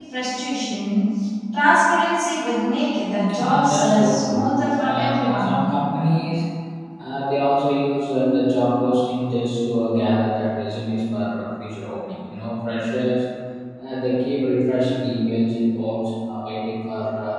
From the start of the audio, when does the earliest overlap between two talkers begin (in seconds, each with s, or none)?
3.3 s